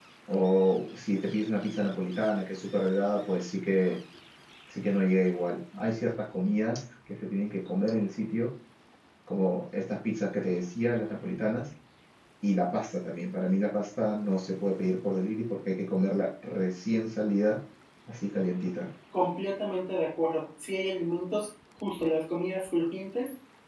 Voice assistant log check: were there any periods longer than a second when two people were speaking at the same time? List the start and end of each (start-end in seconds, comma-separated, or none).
none